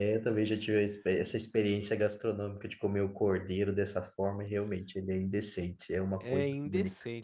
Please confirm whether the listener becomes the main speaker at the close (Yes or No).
Yes